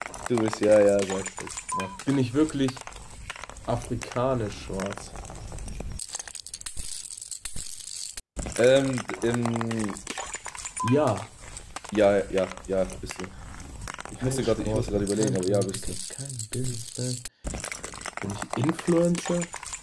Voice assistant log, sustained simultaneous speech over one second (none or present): present